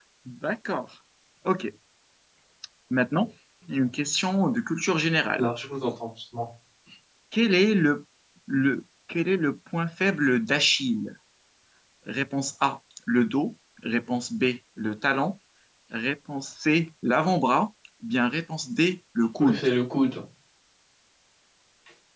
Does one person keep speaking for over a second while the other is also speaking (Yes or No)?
No